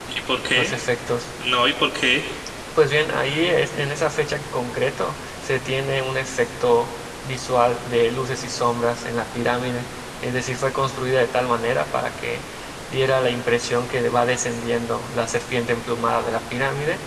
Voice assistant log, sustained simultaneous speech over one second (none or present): none